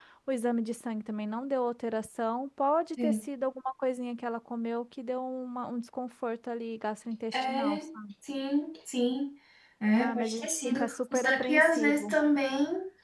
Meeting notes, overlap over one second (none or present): present